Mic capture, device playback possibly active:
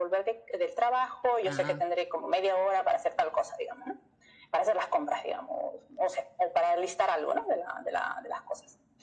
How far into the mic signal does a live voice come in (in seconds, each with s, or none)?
1.4 s